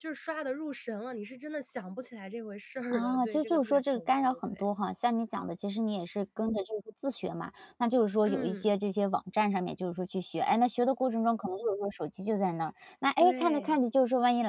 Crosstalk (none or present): present